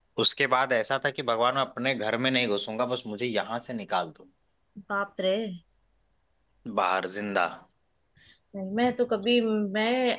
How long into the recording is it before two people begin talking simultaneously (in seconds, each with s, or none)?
none